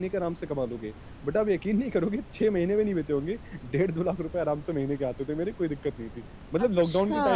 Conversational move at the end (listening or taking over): listening